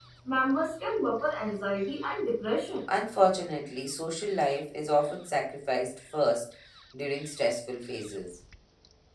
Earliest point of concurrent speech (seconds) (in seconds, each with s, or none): none